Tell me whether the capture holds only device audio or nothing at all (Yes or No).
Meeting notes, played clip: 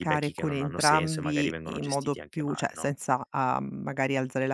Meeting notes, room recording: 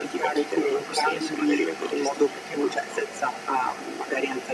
Yes